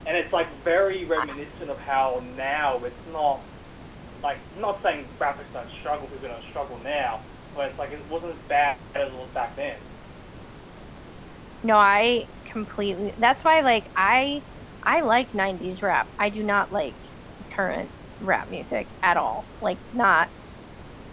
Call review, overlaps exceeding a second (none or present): none